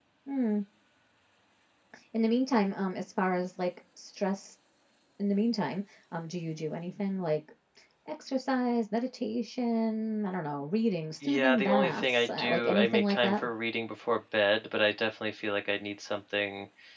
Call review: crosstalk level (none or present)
present